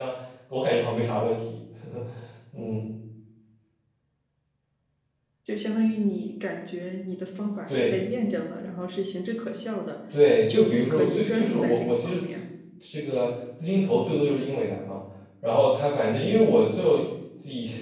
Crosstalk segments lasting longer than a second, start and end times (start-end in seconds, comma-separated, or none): 10.5-12.2